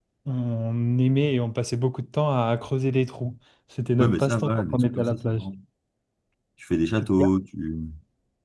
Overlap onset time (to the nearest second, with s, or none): 4 s